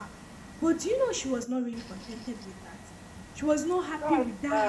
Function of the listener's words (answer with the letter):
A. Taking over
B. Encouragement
B